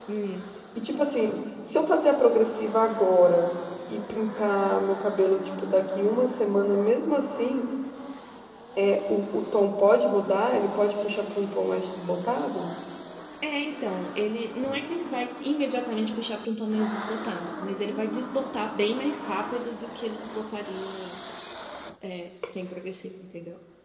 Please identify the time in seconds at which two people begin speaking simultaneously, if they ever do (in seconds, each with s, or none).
none